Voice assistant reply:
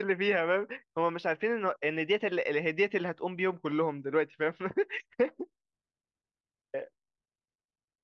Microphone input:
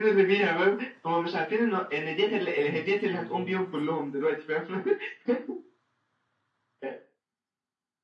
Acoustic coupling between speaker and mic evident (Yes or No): Yes